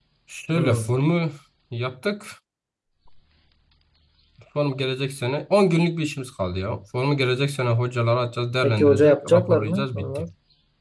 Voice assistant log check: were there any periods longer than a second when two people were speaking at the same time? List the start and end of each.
8.6-10.3

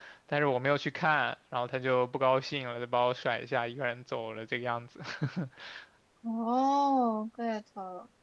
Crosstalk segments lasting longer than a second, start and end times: none

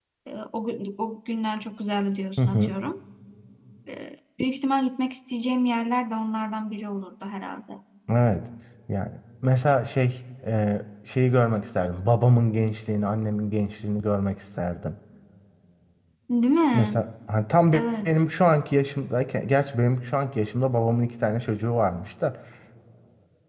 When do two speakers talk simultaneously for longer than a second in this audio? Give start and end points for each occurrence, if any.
none

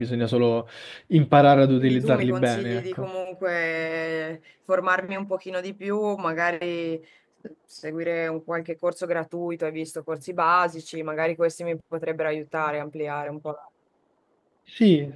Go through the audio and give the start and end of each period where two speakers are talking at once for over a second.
1.8-3.1

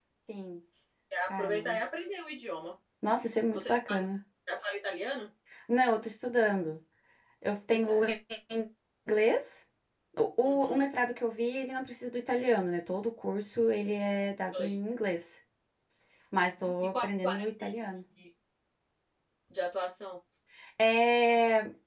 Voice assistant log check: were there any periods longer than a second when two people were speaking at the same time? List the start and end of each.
16.4-17.7

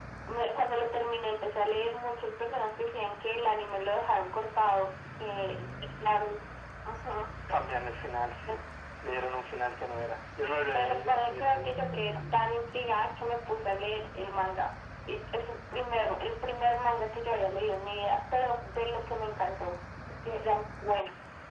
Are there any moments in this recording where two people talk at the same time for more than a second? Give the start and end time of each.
10.7-12.4

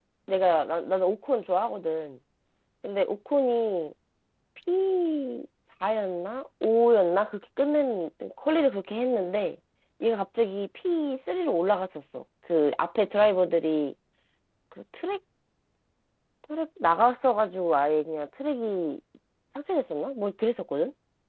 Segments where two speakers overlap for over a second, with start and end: none

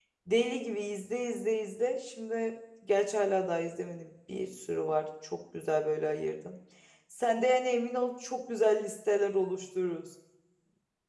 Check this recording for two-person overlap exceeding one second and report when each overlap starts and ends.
none

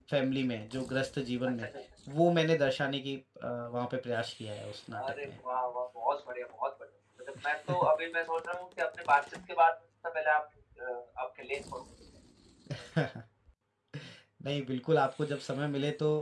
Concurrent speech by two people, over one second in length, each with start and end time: none

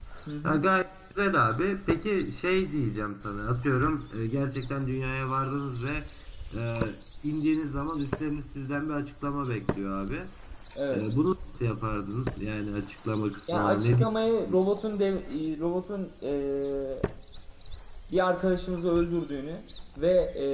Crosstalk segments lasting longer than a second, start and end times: none

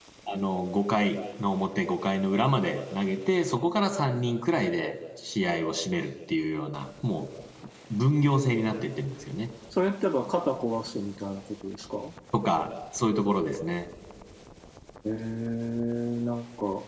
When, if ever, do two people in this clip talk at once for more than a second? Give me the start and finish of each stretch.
none

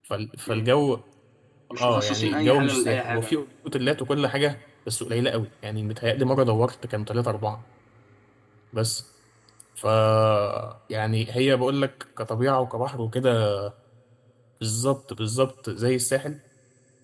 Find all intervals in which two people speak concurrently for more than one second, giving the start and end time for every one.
1.8-3.5

